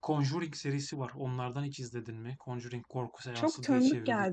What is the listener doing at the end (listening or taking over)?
taking over